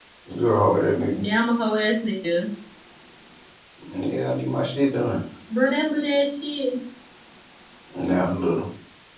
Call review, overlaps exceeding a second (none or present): none